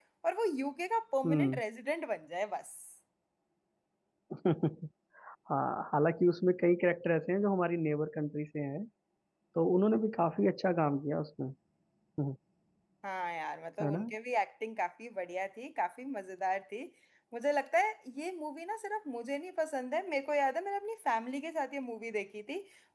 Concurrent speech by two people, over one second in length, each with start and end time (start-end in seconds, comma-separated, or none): none